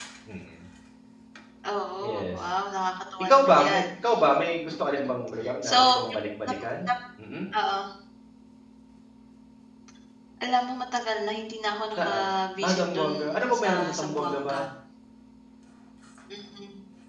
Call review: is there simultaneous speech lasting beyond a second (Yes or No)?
Yes